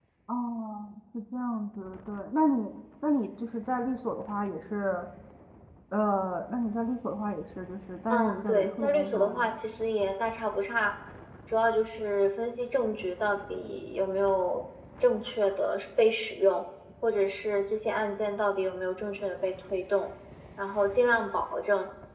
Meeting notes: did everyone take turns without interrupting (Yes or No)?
No